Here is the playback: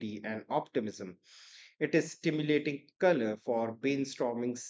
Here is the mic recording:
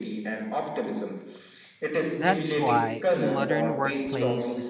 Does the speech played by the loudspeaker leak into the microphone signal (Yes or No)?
Yes